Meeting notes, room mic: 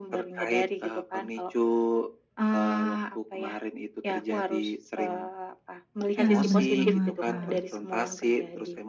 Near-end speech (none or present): present